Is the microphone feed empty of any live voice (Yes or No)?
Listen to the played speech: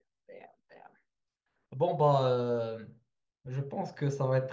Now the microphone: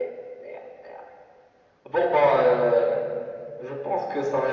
Yes